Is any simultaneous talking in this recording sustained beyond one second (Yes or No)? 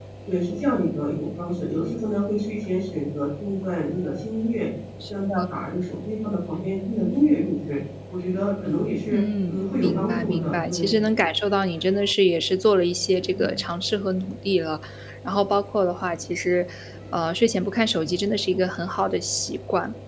Yes